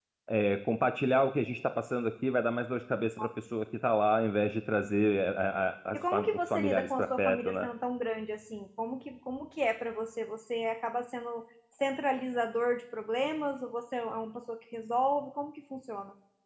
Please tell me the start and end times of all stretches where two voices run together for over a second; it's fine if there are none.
5.9-7.7

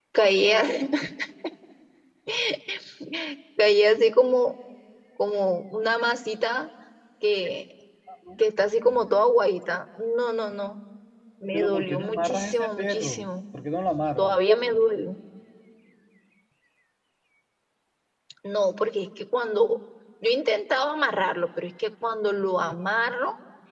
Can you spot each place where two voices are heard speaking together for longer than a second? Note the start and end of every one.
11.5-13.3

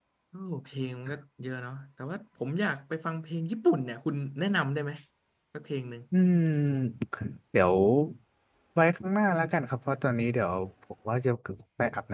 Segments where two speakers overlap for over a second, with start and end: none

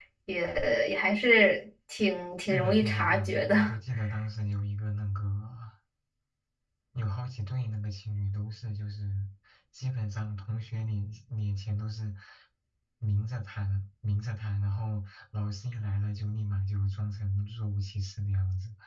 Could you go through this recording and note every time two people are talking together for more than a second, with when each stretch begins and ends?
2.5-3.7

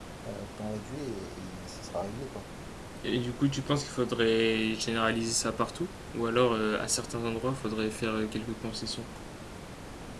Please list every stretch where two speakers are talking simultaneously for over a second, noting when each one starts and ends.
none

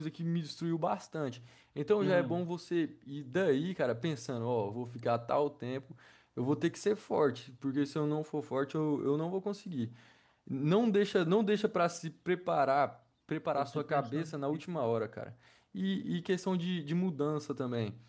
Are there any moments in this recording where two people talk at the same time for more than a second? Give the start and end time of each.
13.6-14.8

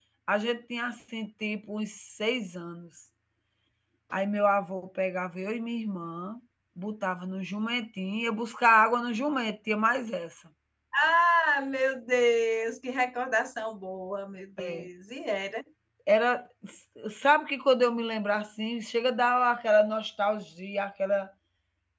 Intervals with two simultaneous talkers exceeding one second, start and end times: none

